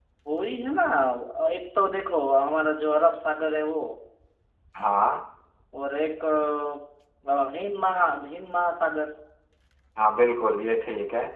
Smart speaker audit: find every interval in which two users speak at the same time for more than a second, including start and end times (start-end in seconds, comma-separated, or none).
none